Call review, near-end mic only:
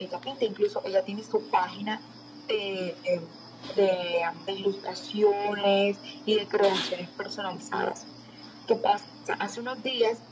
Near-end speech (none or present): none